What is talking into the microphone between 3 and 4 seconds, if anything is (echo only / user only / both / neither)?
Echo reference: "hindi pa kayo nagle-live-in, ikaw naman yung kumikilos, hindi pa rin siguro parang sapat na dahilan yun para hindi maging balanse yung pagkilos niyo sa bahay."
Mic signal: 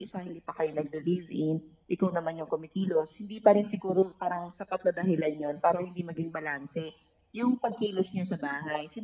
echo only